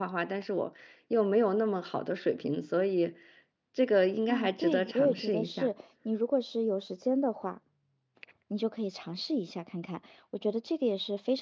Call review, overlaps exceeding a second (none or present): present